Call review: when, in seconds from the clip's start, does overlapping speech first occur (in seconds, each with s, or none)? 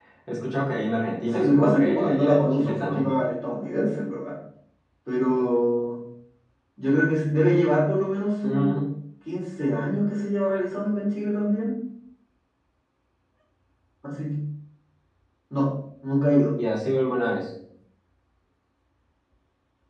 1.3 s